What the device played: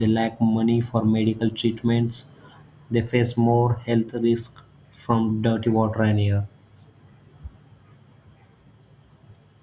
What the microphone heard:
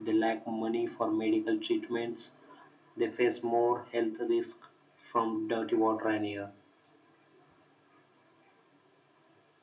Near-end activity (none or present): none